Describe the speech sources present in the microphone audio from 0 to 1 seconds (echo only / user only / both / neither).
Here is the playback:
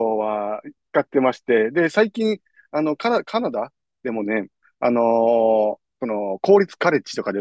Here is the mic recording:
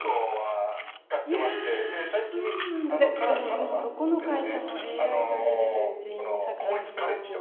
echo only